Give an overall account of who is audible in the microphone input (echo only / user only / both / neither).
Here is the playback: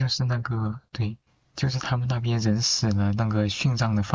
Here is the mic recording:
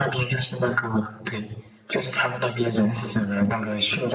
echo only